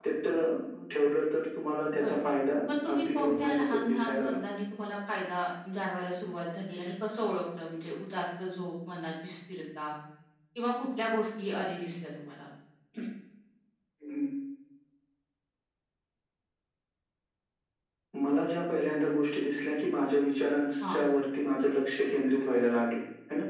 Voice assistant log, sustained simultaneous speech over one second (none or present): present